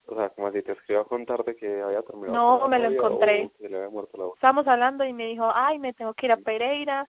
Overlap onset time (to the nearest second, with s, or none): 2 s